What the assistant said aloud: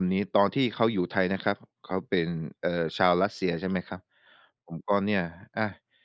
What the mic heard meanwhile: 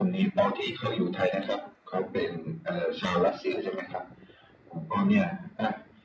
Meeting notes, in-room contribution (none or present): none